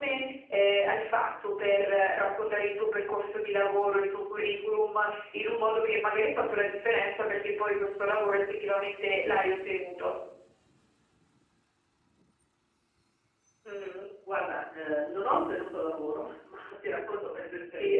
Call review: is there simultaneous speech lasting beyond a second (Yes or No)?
No